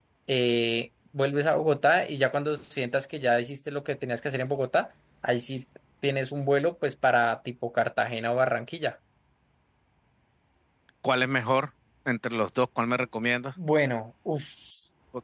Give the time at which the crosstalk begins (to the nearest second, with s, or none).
none